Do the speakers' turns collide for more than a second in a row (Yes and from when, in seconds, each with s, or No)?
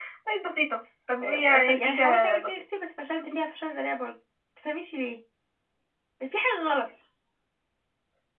Yes, from 1.2 s